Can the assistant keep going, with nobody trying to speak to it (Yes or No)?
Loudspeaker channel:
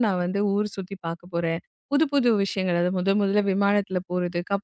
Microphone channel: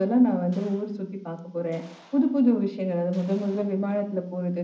Yes